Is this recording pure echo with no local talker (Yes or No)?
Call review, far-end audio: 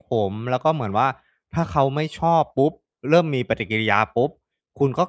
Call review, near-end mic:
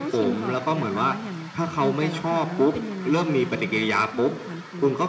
No